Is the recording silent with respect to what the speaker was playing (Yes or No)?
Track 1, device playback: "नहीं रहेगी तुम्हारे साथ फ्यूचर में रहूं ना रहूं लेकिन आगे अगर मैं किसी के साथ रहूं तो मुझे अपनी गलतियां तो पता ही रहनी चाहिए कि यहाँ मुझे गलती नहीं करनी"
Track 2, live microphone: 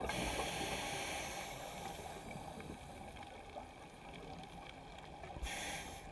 Yes